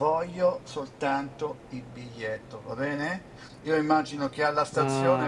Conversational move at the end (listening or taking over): listening